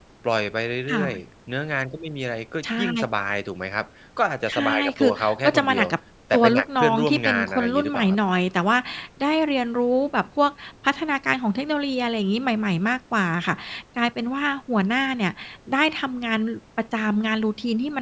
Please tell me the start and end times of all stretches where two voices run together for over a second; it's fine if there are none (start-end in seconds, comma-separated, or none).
4.5-5.8, 6.3-8.2